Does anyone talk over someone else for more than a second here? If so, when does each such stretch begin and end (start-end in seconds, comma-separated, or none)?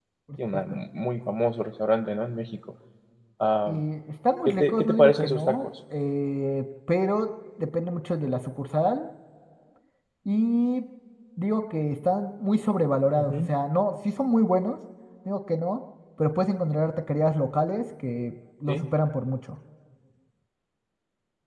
4.5-5.7